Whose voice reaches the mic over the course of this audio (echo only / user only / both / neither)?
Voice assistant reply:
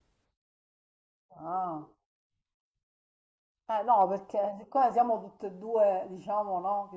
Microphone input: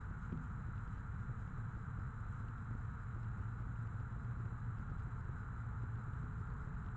neither